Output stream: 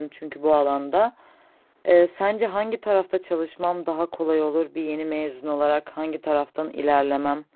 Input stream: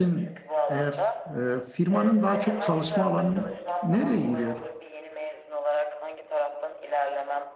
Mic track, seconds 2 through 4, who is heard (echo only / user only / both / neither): both